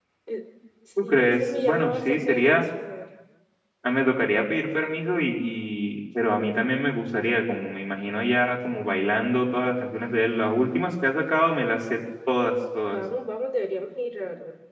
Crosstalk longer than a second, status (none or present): present